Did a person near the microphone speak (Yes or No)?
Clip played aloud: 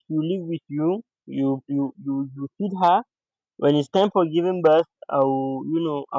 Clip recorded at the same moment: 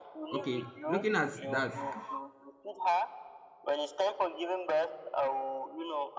Yes